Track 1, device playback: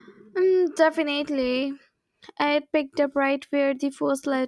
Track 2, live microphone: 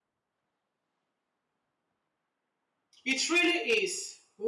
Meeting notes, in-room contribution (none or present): present